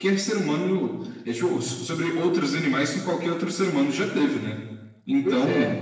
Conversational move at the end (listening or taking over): listening